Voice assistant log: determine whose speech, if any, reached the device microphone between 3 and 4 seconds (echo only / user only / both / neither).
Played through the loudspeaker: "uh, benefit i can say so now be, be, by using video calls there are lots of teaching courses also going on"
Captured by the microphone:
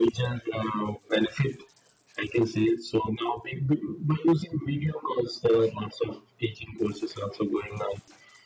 echo only